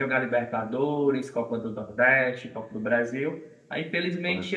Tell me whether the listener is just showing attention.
Yes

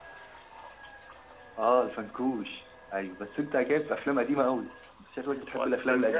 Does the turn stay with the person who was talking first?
No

